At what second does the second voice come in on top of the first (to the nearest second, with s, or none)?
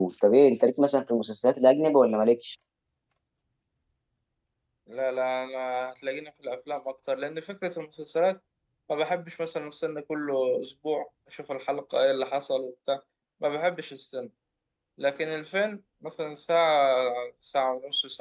none